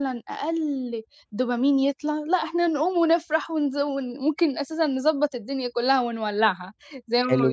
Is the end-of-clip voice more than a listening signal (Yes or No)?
Yes